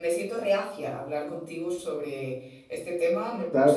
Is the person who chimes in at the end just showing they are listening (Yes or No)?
No